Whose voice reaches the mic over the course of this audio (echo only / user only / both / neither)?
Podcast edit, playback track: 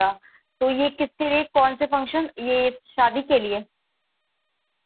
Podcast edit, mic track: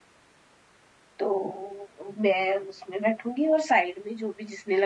user only